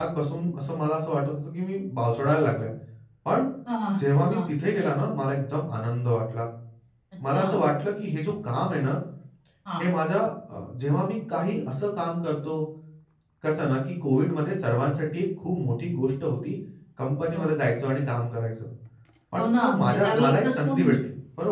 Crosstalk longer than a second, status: present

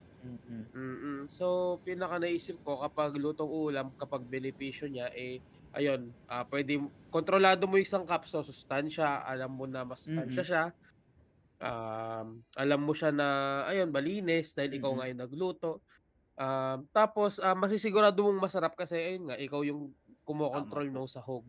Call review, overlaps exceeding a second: none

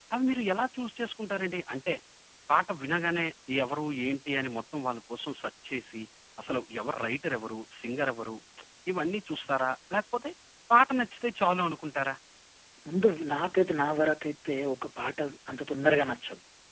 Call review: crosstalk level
none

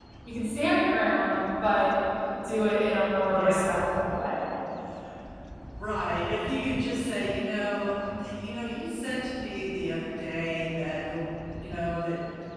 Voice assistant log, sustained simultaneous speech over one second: none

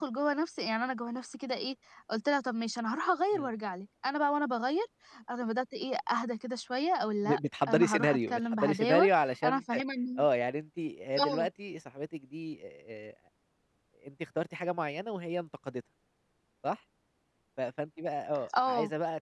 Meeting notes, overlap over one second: present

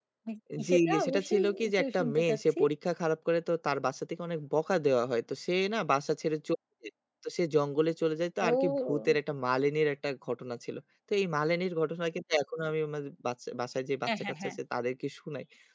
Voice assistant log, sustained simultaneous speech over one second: present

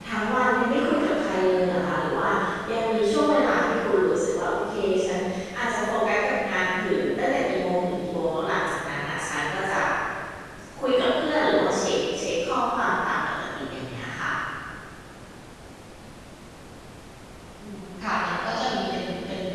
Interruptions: none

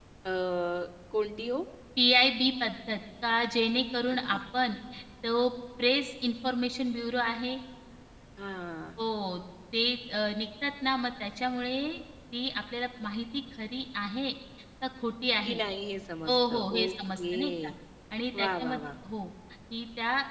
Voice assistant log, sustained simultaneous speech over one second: present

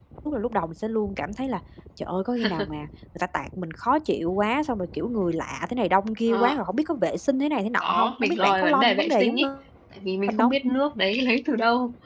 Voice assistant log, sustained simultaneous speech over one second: present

